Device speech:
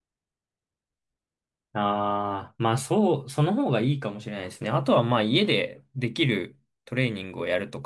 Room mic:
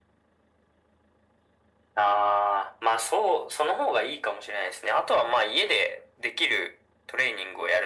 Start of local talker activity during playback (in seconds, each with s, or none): none